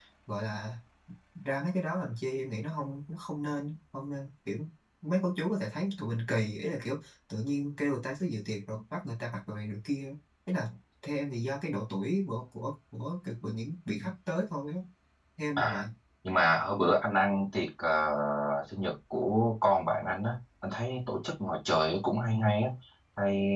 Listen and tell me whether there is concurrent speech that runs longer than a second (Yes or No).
No